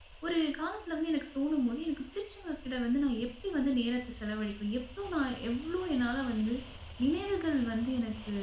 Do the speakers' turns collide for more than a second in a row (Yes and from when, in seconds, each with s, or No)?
No